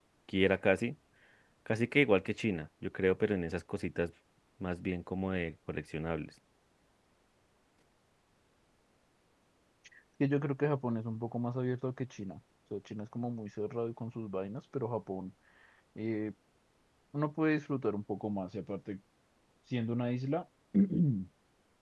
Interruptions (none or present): none